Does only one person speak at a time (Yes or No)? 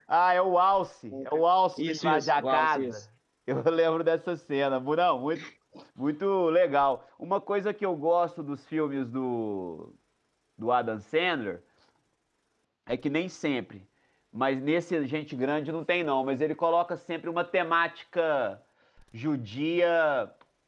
No